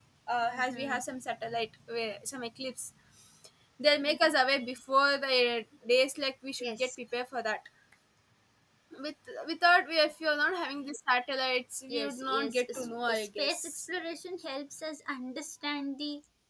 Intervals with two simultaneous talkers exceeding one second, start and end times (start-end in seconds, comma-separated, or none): 11.9-13.8